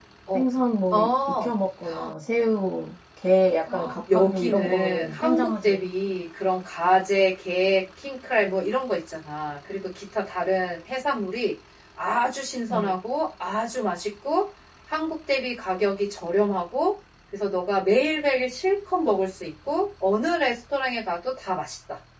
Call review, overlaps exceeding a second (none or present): present